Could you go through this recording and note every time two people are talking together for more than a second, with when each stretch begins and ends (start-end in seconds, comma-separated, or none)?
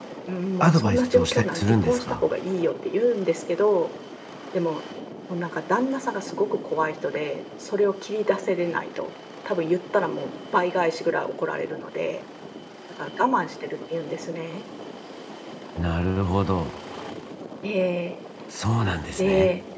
0.6-2.2